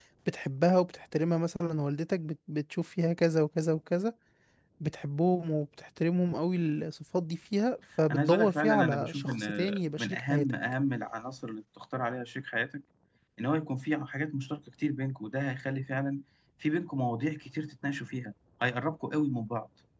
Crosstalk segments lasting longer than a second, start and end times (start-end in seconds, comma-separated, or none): 8.1-10.5